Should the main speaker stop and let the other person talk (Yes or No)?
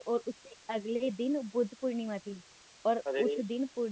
No